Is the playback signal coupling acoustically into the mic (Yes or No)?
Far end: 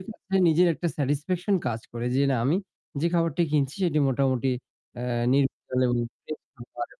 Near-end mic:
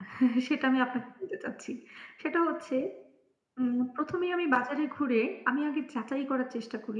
No